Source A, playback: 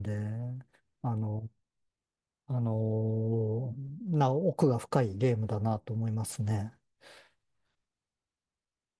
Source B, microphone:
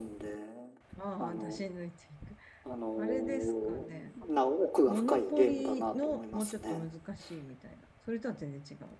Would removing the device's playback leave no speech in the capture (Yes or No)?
No